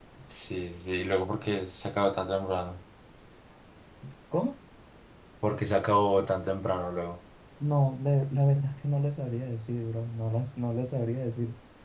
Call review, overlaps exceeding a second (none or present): none